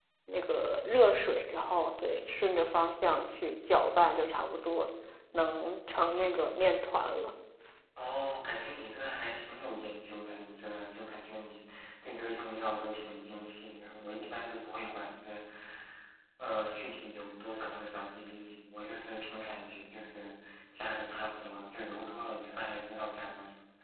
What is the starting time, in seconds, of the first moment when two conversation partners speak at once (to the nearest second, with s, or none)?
none